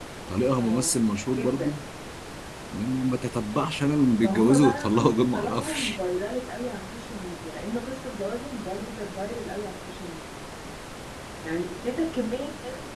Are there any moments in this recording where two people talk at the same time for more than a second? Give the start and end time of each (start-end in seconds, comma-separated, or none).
4.2-6.0